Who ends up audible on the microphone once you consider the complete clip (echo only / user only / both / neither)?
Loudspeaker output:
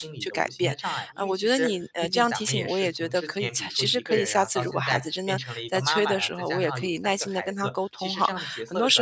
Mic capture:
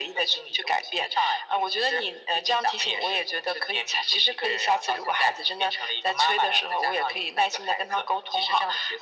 echo only